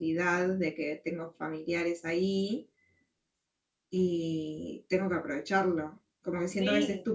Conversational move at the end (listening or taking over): listening